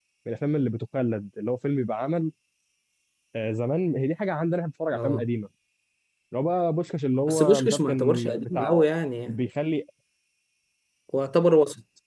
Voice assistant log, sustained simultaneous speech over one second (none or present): present